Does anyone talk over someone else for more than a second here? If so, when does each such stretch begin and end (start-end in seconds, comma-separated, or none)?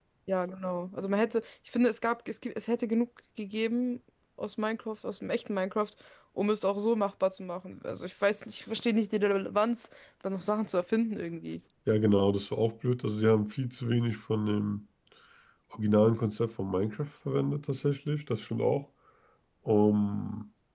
none